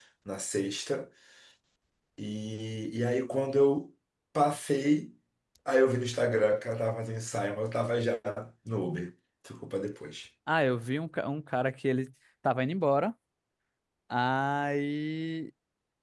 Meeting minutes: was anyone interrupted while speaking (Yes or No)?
No